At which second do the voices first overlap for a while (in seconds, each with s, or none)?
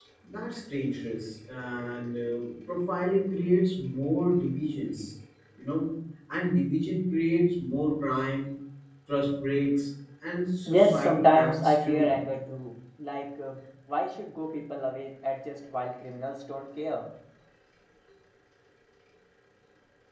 10.7 s